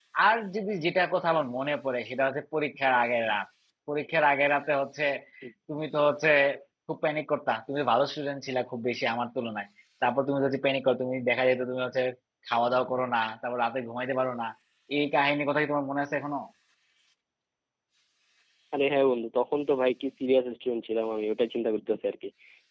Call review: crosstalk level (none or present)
none